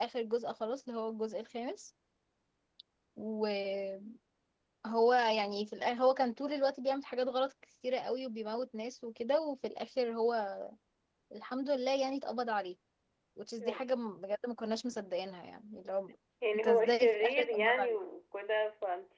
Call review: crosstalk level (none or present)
present